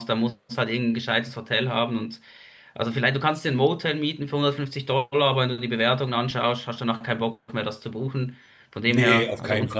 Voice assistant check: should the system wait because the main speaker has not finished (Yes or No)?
No